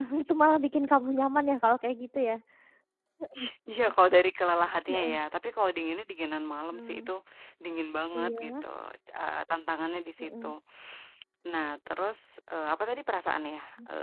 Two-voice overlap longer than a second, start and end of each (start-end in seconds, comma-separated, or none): none